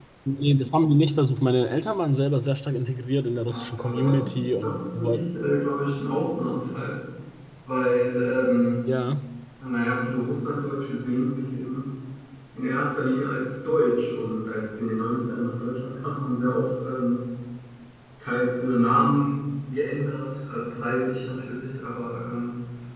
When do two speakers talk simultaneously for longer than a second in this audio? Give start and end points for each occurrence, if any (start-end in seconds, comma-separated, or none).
3.5-5.2